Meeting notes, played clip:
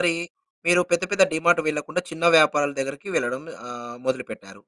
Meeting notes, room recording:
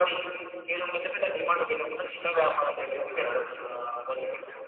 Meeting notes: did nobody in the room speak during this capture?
Yes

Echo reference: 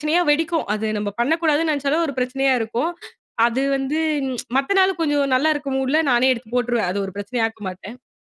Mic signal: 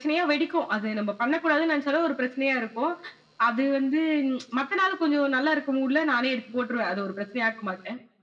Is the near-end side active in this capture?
No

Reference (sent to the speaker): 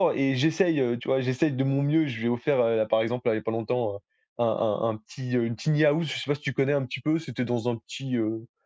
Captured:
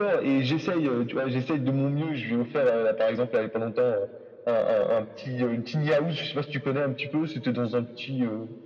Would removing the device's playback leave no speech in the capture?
Yes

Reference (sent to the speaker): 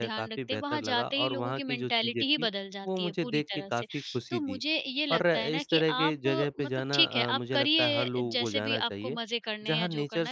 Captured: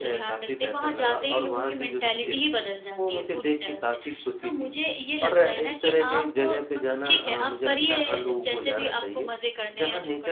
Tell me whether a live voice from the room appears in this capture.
Yes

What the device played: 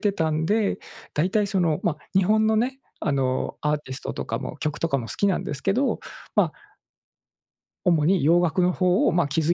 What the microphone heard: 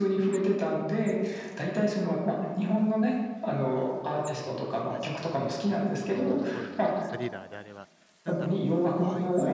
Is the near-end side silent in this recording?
No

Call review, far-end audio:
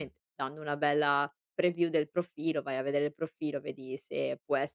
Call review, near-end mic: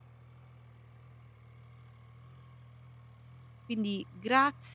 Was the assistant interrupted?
Yes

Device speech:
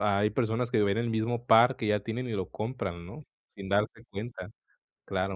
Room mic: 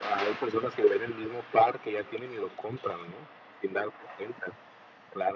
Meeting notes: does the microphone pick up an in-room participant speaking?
No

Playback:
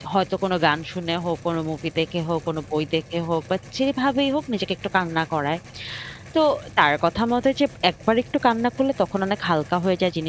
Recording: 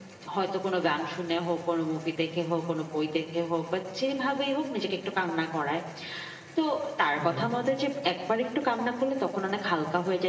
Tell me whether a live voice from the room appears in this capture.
Yes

